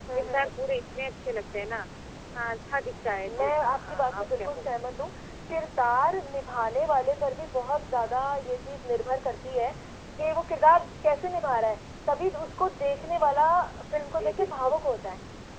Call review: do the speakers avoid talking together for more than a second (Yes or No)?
No